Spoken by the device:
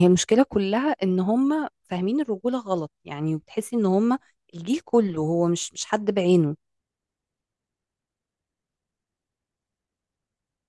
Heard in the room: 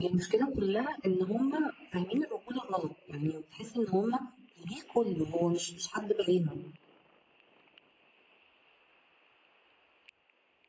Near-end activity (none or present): none